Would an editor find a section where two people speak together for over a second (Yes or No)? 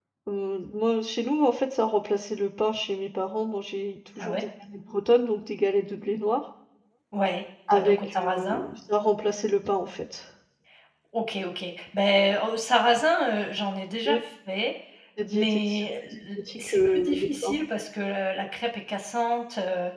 Yes